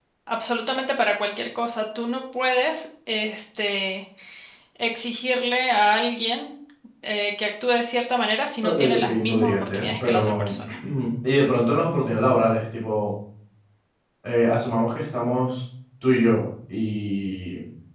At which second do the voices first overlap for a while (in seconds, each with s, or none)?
8.6 s